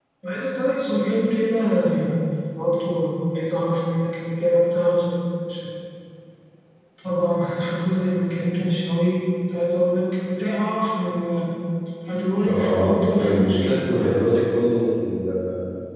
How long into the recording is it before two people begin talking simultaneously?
12 s

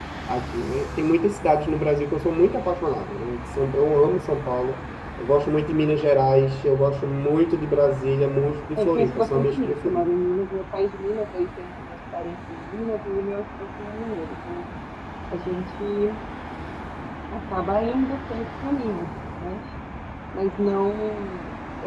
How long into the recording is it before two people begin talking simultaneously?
9 s

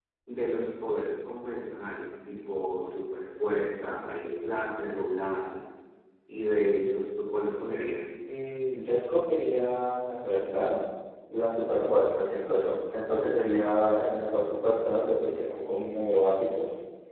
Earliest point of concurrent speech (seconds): none

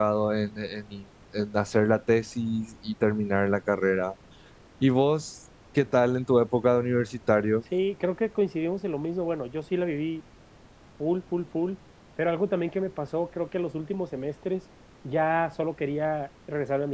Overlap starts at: none

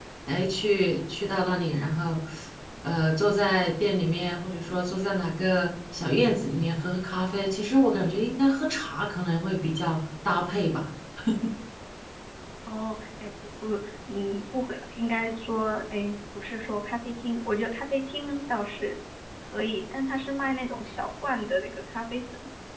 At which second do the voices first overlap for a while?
none

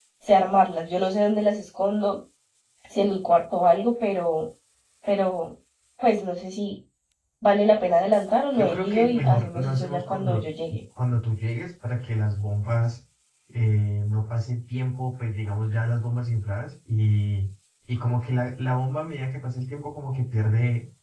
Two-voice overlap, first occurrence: 9 s

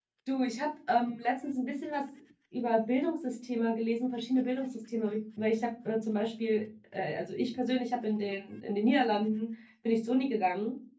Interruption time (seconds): none

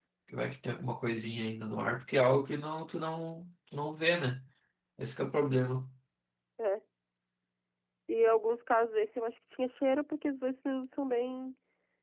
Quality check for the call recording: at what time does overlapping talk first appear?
none

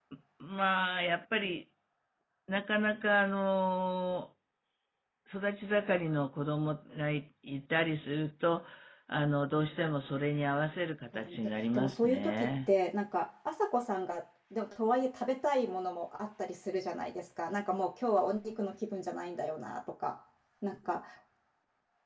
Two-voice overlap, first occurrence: 11 s

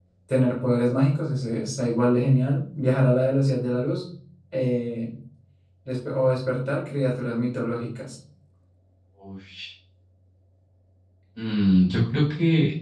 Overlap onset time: none

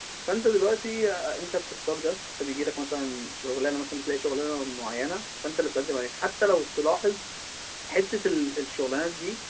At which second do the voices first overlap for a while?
none

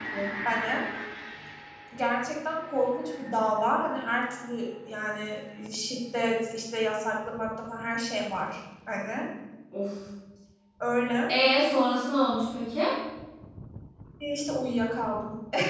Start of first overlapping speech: none

